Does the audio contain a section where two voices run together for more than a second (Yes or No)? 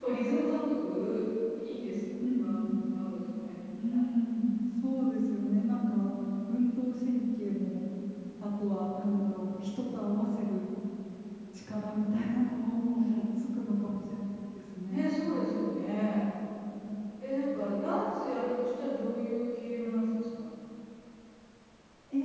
No